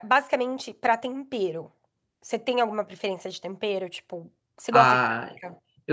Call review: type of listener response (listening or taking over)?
taking over